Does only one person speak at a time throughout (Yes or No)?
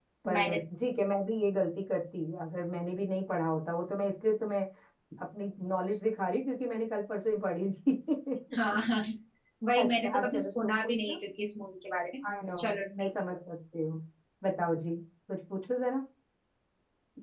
No